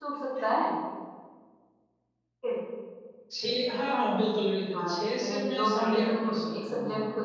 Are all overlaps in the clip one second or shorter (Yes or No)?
No